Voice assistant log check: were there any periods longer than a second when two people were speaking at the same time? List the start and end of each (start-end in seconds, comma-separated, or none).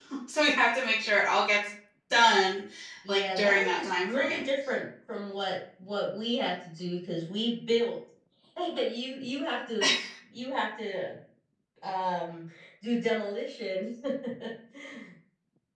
3.1-4.5